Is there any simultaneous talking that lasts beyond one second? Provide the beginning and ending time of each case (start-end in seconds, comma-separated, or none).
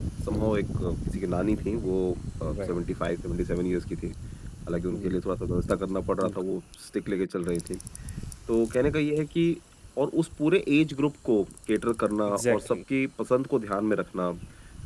none